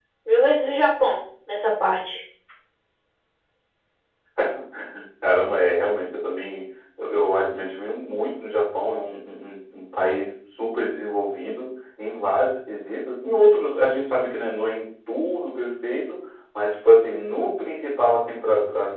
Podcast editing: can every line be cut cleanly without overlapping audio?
Yes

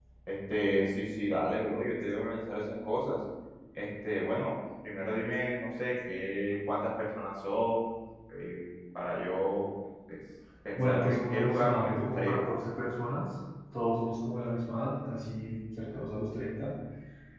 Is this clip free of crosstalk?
No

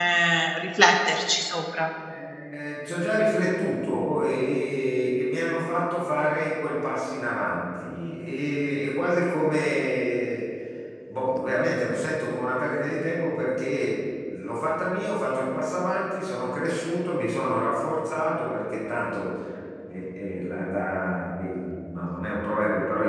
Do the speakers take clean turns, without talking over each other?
Yes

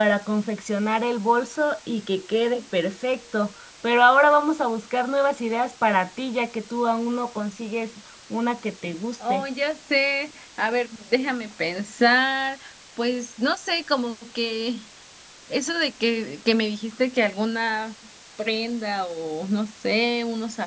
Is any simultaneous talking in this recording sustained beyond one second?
No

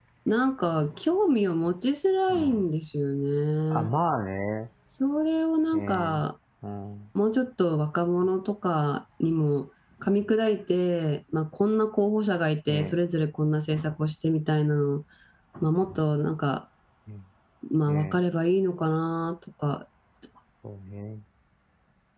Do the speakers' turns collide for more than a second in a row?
No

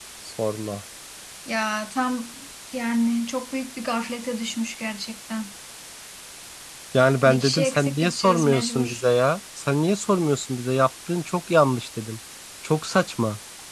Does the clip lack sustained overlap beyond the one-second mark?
No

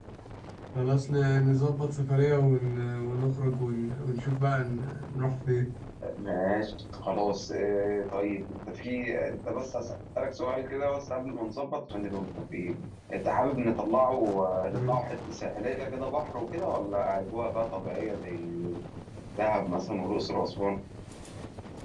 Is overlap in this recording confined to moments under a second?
Yes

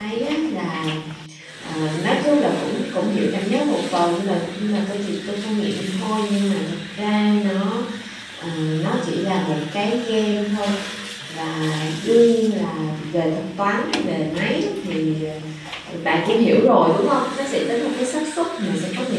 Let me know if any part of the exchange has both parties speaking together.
No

